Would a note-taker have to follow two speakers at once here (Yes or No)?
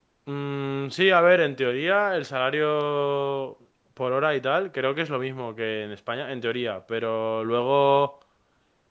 No